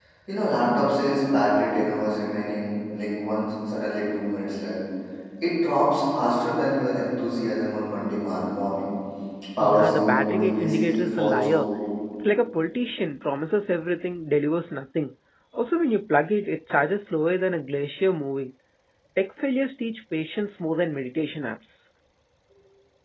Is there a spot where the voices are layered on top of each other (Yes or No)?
Yes